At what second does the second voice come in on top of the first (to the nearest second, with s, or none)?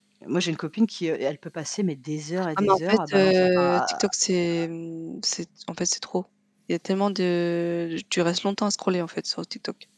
3 s